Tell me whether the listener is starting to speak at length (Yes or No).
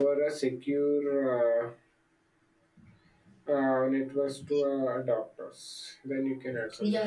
Yes